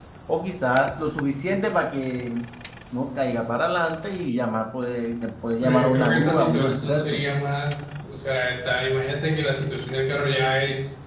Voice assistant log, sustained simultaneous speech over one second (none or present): present